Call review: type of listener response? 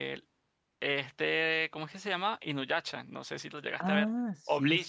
taking over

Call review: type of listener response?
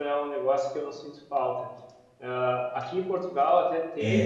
listening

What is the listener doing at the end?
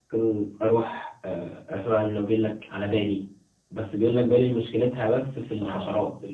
taking over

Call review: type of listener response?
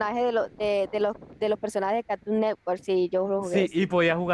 taking over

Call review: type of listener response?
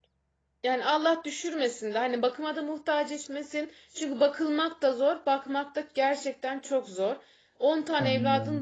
listening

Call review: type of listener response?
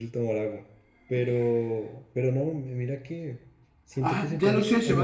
taking over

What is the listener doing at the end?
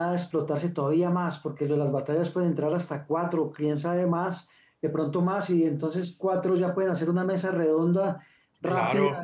listening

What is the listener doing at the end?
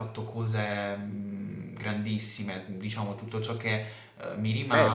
taking over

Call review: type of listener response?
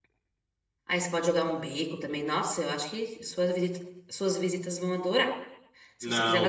taking over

